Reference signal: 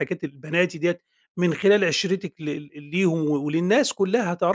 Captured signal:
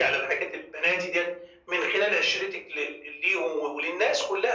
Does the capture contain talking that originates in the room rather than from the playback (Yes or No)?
No